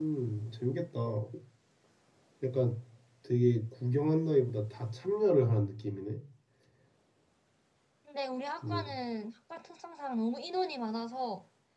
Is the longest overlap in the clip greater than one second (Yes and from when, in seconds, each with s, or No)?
No